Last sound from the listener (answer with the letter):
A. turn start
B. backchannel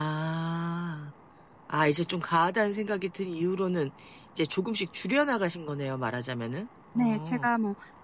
A